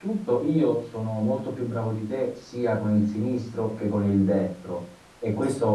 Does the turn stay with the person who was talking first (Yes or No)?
Yes